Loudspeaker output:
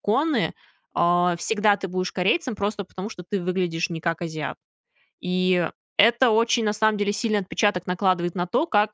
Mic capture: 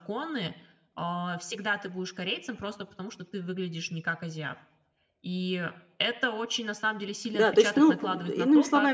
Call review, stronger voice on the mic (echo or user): user